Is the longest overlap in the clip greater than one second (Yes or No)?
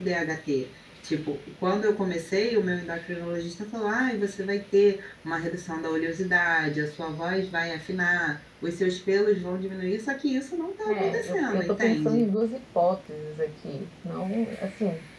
Yes